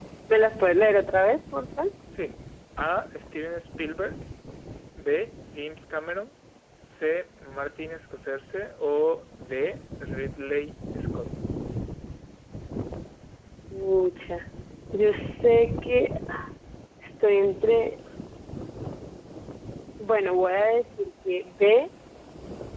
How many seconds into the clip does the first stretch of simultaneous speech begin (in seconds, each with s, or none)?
none